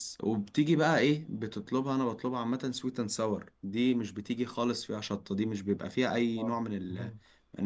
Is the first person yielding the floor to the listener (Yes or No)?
No